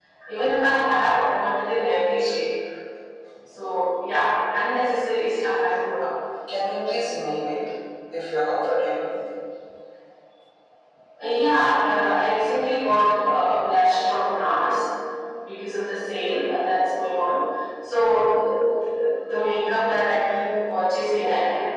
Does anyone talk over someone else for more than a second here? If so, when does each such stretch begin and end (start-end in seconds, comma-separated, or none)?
none